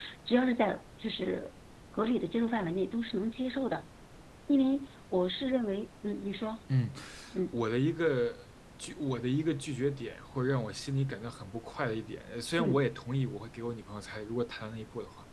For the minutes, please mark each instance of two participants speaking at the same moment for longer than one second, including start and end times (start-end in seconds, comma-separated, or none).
none